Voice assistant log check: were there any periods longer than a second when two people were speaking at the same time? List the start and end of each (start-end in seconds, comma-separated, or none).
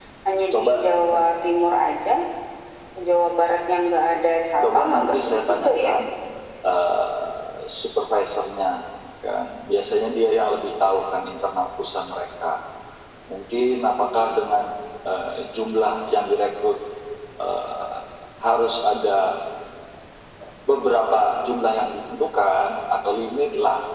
4.6-5.9